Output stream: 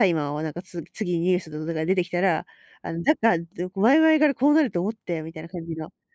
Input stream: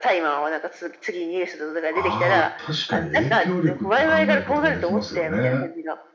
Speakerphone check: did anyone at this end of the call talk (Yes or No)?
Yes